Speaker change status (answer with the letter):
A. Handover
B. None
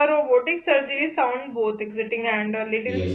B